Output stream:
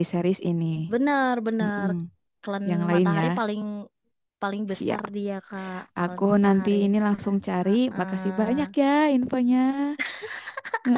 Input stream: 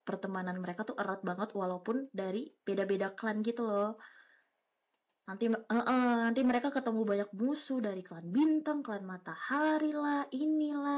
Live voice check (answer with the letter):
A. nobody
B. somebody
B